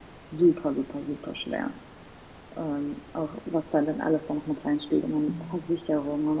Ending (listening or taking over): listening